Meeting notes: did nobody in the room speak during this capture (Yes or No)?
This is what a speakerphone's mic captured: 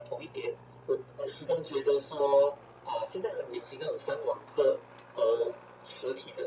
Yes